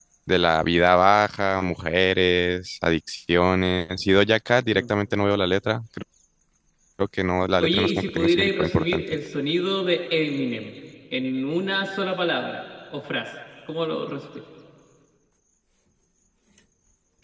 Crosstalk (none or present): present